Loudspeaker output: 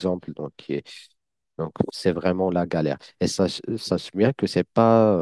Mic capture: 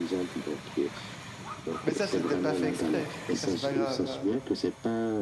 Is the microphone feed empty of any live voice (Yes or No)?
No